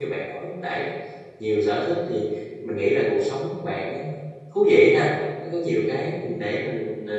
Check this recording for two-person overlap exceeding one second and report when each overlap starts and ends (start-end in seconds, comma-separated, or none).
none